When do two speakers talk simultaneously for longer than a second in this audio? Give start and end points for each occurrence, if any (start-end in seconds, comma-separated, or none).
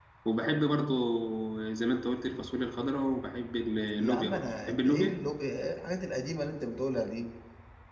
4.0-5.2